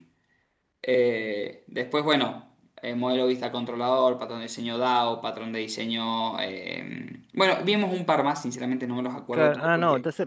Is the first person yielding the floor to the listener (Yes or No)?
Yes